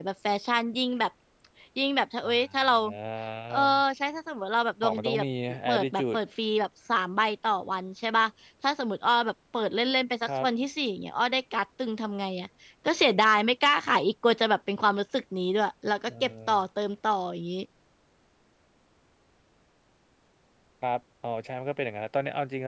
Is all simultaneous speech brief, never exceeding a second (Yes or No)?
Yes